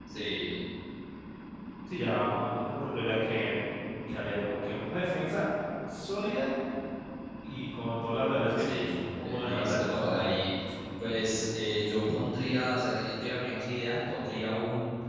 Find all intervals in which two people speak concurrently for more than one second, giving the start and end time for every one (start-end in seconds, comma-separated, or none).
8.5-9.9